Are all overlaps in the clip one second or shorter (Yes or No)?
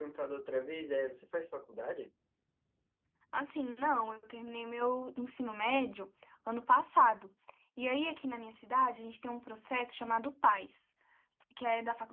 Yes